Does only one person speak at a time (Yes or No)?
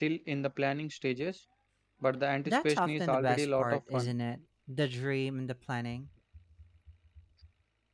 No